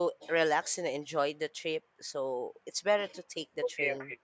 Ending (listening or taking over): taking over